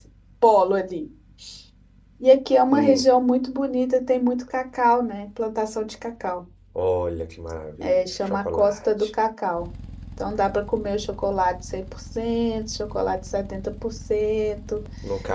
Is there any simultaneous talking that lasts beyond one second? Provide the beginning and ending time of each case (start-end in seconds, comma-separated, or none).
7.8-9.1